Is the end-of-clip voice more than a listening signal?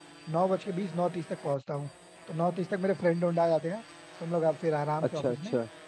No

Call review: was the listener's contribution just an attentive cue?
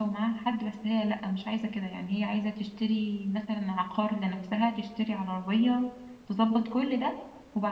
Yes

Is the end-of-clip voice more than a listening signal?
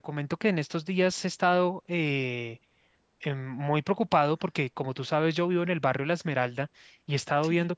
No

